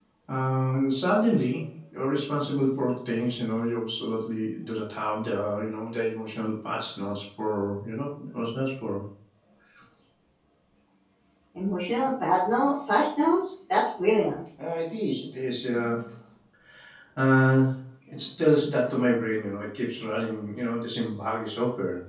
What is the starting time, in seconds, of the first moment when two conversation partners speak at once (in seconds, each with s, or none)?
none